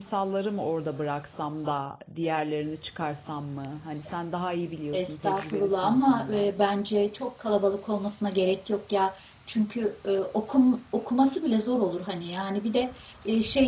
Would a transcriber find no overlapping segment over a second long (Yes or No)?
No